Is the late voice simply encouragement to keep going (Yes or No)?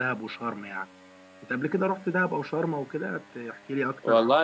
No